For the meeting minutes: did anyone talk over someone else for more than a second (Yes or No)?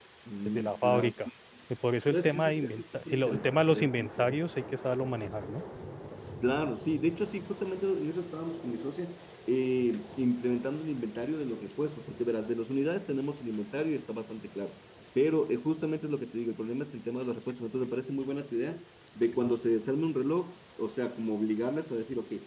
Yes